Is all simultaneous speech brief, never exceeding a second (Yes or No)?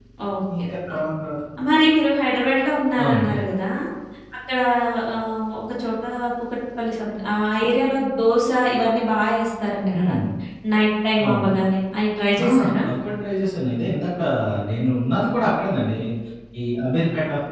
Yes